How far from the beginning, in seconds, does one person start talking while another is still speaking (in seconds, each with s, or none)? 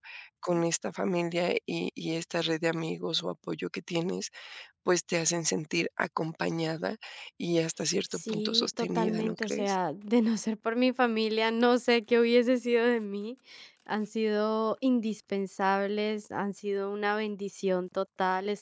8.1 s